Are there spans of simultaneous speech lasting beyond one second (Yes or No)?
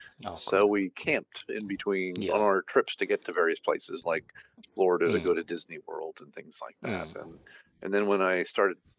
No